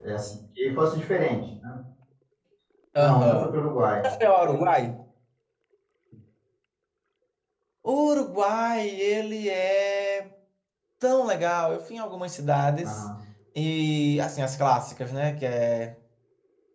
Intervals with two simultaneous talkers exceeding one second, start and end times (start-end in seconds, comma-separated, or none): none